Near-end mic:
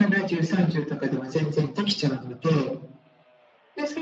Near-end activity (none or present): none